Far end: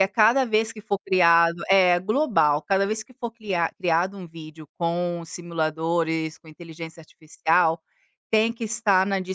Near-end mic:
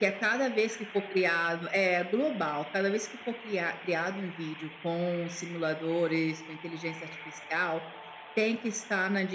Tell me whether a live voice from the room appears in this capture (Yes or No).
No